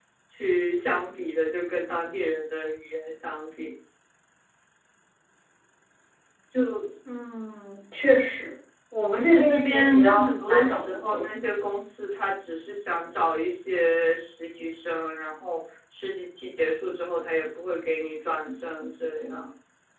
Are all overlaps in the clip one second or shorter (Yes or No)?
No